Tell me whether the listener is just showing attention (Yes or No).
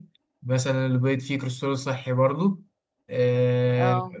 Yes